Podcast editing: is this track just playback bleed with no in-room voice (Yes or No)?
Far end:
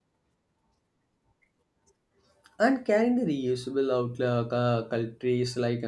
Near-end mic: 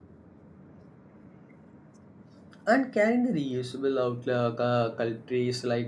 Yes